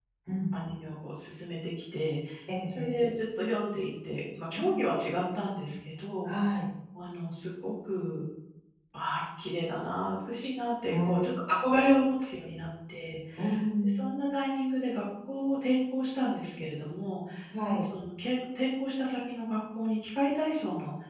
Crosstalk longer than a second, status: none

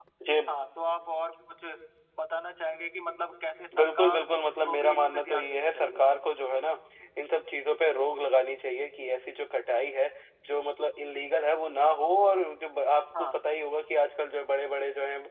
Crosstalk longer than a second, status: present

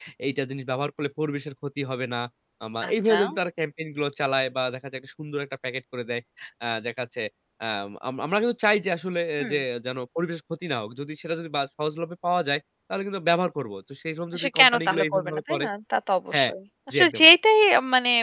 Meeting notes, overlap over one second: present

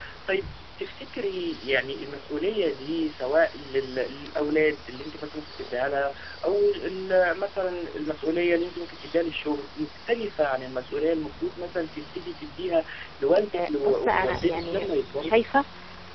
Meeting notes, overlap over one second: present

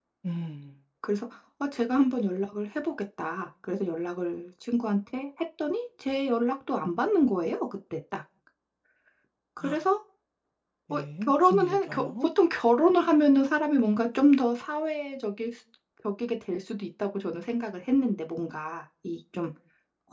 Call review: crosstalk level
present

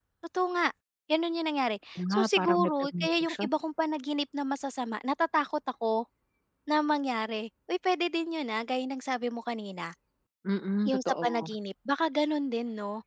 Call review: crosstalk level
present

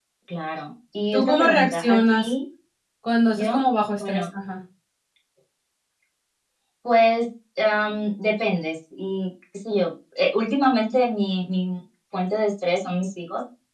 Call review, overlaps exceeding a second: present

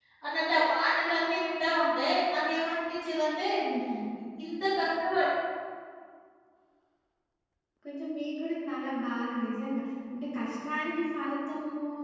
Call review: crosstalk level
none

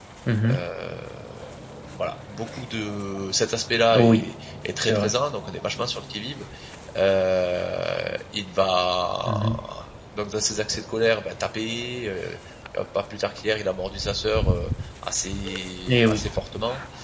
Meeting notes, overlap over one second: none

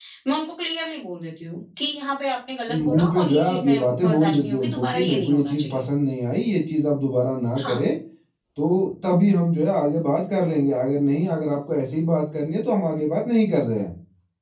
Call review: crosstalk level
present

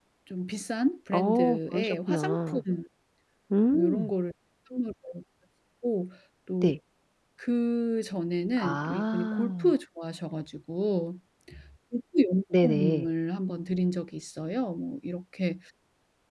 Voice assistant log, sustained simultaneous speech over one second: present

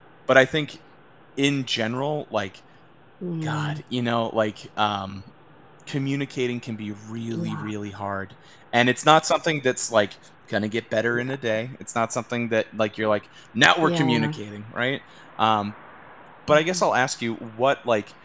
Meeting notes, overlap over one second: none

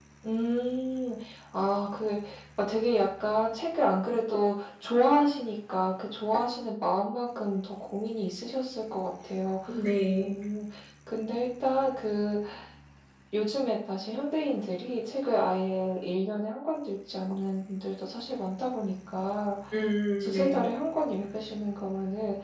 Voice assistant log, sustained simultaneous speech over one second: none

